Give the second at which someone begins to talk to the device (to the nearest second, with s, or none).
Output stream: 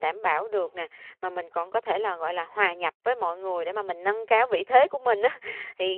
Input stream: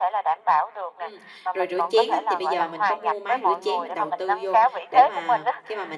1 s